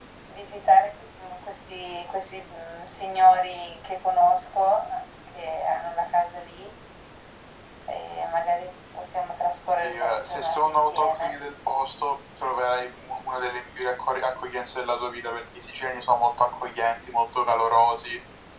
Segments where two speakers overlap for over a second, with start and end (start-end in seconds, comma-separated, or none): 9.8-11.3